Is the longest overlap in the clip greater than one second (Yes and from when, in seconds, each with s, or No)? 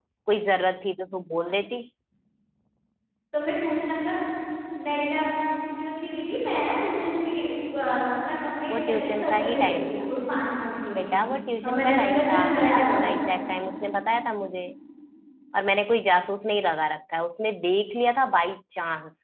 Yes, from 8.7 s